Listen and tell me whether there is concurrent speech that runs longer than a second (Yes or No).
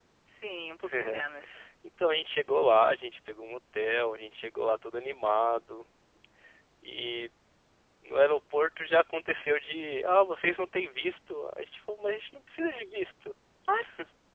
No